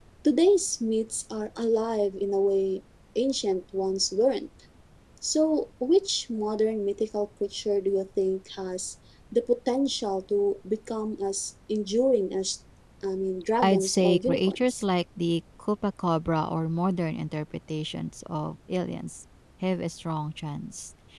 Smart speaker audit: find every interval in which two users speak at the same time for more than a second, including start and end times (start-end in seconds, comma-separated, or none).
13.6-14.8